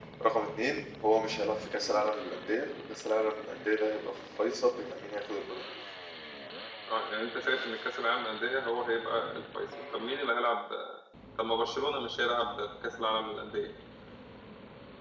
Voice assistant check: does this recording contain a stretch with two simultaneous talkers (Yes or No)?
No